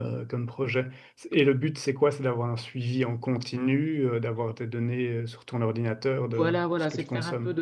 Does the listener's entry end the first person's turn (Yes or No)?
Yes